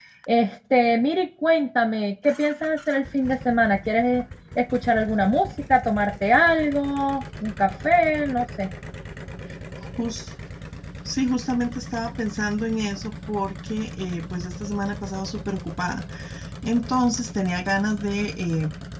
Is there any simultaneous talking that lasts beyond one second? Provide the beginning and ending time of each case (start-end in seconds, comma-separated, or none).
none